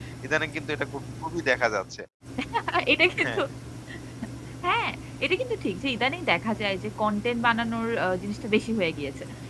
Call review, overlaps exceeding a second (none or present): none